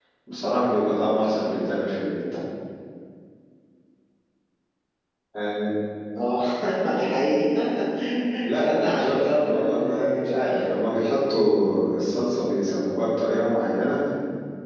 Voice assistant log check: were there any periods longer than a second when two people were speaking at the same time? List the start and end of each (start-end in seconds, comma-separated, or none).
8.6-10.7